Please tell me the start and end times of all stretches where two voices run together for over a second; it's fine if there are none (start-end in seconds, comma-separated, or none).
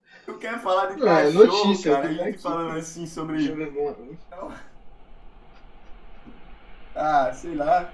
0.9-2.8